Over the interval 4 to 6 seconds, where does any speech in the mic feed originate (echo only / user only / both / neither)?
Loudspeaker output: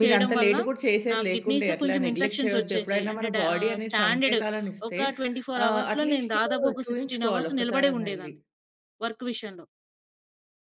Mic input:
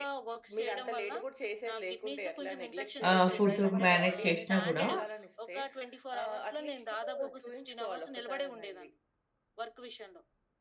both